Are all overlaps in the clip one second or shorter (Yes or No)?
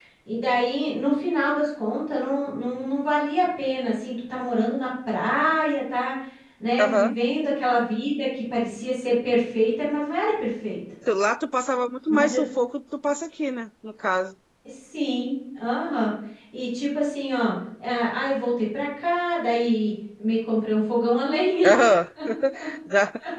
Yes